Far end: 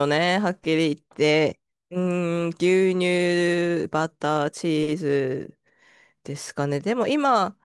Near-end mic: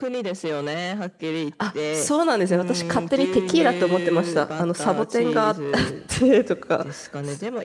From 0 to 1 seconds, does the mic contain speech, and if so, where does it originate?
echo only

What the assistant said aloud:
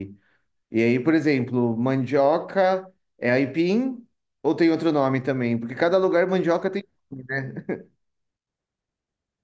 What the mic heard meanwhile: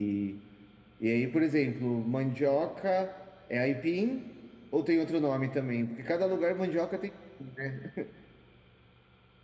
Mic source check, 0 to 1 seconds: echo only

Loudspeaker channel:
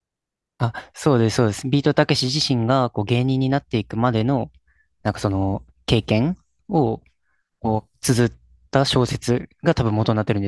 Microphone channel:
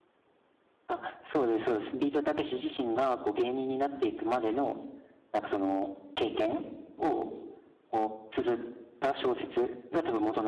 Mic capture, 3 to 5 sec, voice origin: echo only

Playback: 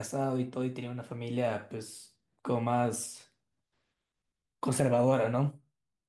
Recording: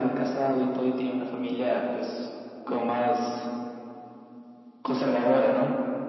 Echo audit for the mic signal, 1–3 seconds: echo only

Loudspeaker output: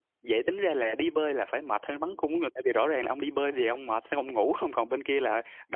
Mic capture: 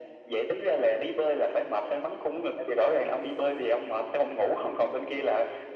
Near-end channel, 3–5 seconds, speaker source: echo only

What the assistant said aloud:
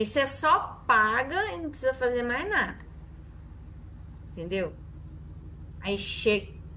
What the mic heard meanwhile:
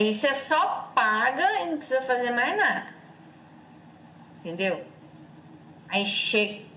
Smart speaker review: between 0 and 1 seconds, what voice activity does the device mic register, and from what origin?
echo only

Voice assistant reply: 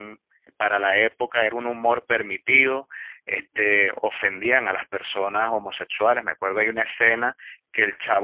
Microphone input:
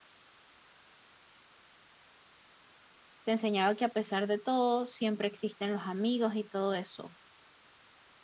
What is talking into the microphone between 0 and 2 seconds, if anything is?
neither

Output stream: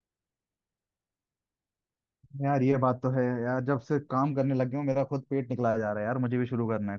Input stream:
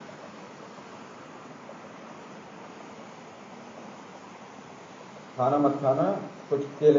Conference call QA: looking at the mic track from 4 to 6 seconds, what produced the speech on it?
user only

